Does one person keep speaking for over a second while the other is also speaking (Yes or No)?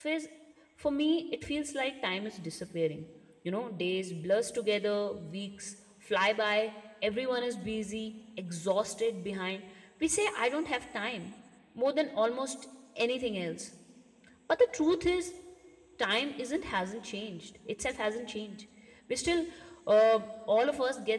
No